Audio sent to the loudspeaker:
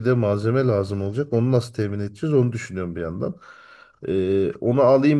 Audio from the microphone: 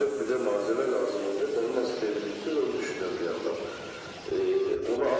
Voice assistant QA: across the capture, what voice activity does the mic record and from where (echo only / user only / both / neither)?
echo only